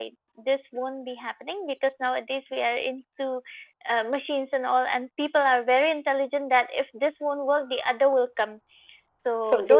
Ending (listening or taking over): listening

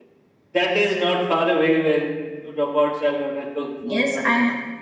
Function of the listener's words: taking over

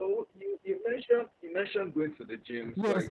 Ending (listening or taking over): taking over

